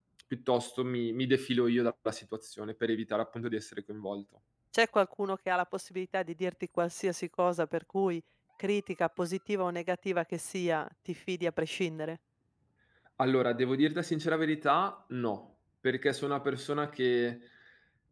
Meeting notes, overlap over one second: none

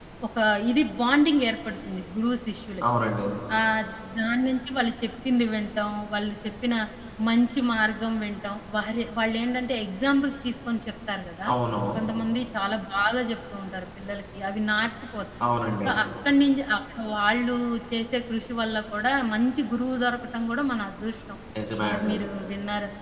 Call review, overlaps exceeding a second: none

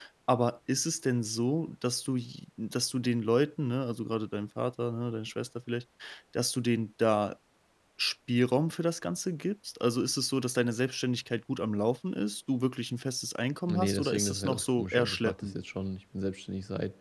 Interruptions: present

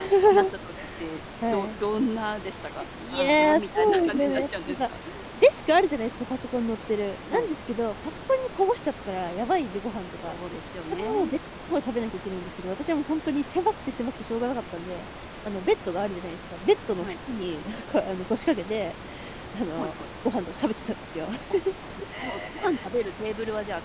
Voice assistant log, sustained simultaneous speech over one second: present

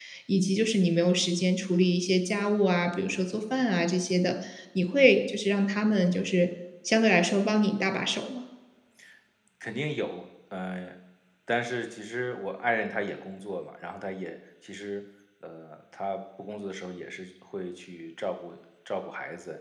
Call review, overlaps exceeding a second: none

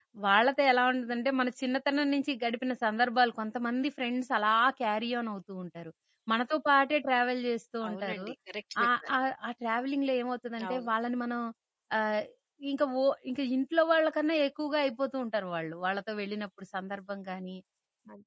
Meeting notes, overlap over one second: none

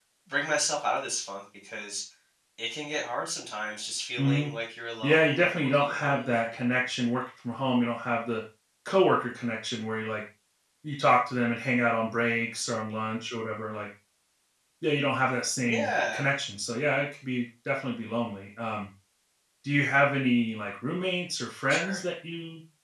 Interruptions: present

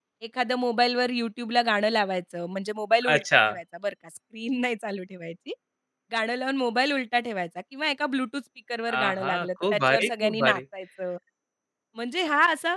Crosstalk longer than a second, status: present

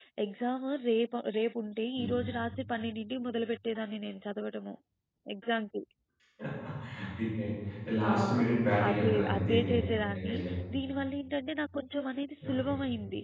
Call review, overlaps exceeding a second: present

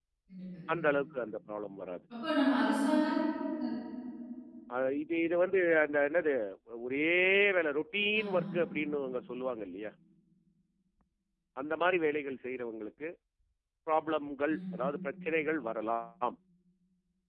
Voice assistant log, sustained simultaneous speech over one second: none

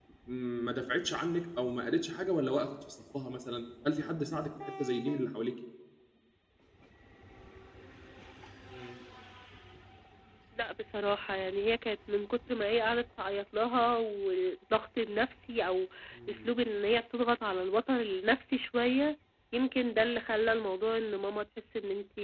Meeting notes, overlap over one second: none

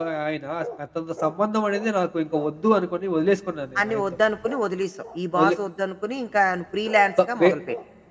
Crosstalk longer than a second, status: none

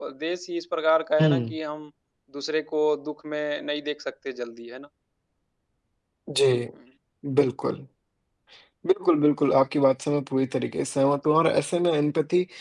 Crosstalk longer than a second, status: none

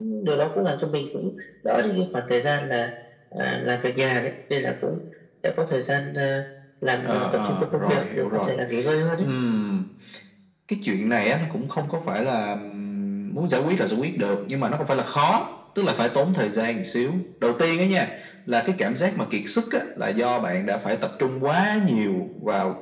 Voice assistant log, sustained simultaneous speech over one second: present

